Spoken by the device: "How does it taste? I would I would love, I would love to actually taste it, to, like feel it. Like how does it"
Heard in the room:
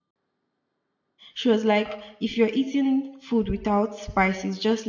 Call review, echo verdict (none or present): none